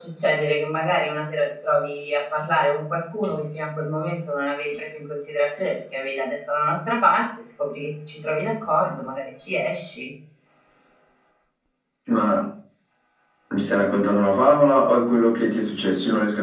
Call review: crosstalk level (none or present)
none